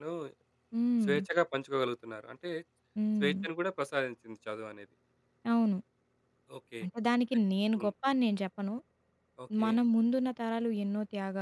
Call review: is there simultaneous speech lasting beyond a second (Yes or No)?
No